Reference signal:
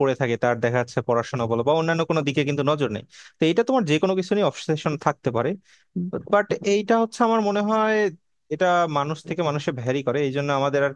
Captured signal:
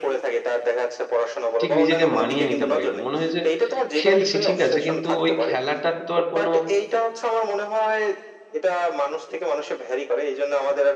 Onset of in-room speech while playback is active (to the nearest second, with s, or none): 2 s